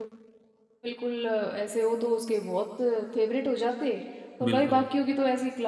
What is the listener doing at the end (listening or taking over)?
listening